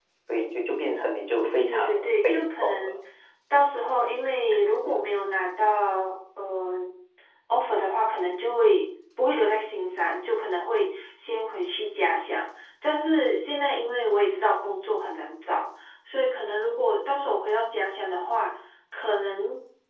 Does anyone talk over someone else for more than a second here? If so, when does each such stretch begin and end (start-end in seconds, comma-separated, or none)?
1.7-2.9